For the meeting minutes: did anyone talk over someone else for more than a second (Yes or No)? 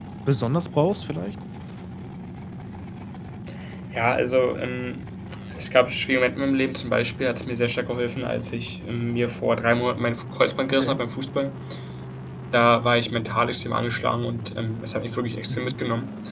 No